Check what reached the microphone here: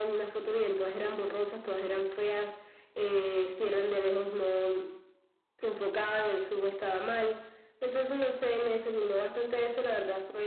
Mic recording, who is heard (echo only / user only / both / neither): echo only